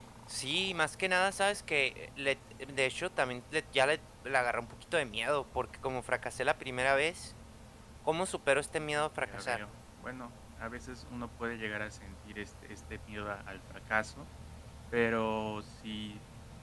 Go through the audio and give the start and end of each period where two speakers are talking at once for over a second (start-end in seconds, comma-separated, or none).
none